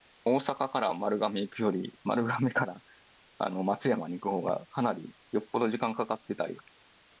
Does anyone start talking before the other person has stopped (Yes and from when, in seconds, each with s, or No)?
No